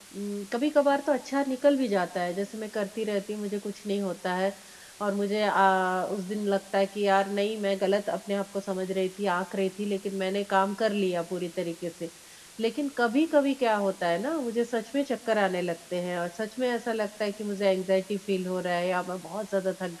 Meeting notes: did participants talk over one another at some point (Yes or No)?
No